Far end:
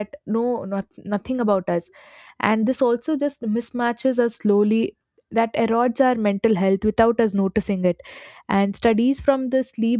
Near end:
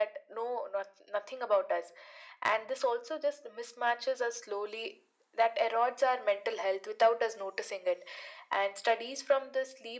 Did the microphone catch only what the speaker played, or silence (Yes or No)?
Yes